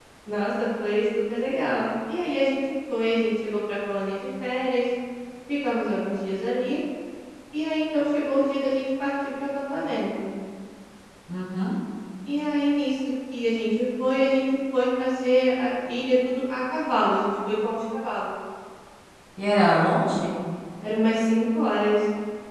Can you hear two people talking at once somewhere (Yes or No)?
No